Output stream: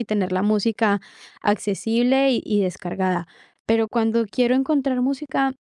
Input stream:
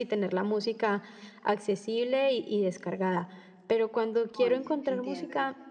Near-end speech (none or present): present